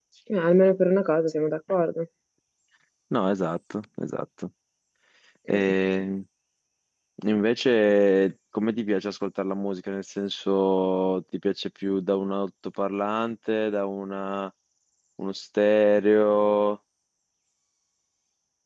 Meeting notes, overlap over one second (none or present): none